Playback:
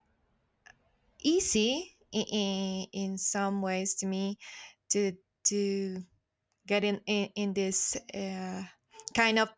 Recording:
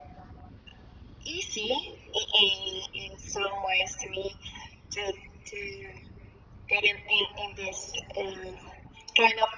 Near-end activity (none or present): none